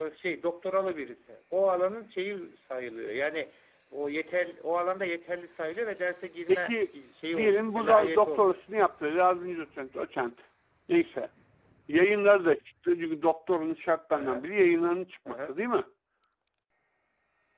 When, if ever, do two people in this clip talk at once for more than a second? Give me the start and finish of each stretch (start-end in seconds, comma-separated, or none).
7.3-8.6